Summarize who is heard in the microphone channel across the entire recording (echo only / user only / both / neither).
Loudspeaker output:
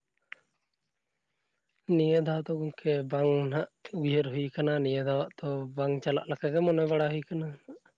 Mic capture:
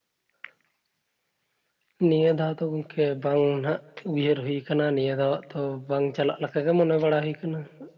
echo only